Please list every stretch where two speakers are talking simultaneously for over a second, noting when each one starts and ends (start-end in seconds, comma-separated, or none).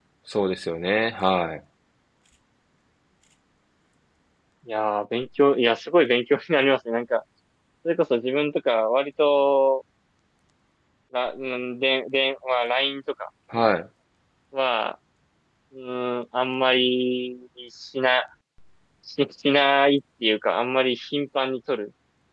none